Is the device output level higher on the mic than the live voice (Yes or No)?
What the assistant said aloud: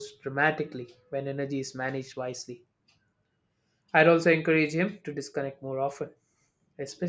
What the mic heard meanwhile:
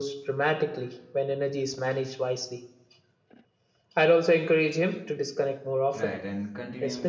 Yes